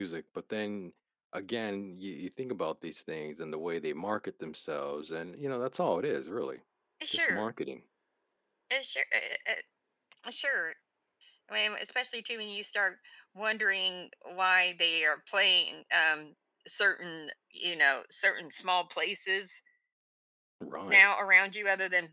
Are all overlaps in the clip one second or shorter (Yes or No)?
Yes